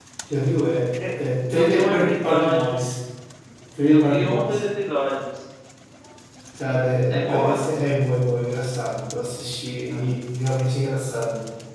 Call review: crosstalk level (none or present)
present